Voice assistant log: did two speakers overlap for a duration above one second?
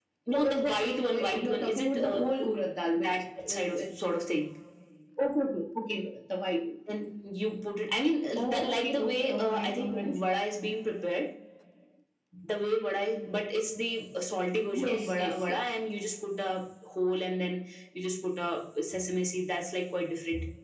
Yes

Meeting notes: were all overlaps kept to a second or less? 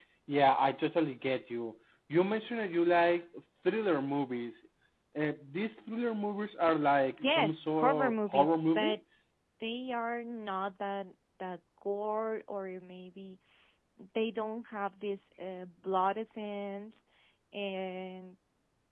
No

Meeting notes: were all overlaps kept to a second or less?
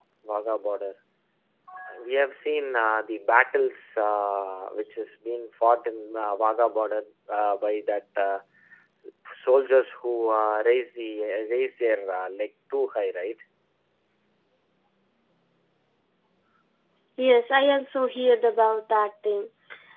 Yes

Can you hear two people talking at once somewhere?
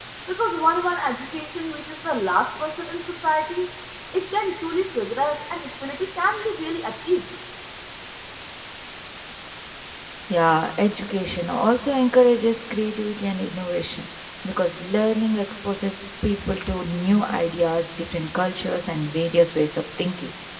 No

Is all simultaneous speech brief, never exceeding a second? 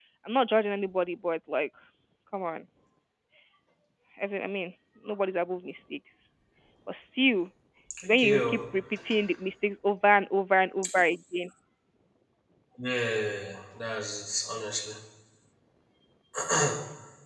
Yes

